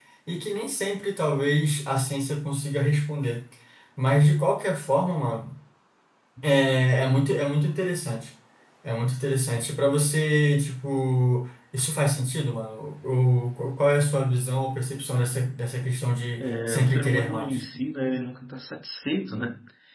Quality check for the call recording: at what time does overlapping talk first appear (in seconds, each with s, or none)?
16.4 s